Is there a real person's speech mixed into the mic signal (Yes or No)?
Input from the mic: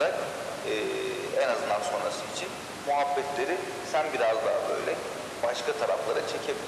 No